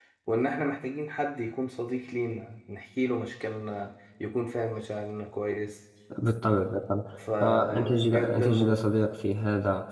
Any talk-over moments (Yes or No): Yes